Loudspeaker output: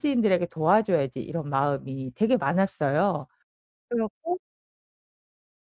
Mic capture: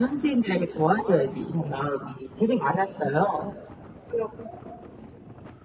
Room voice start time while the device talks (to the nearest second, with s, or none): none